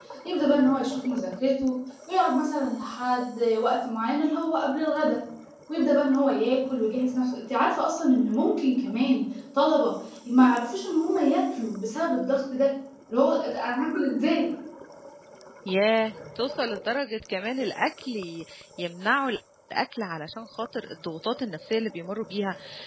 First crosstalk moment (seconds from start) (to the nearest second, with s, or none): none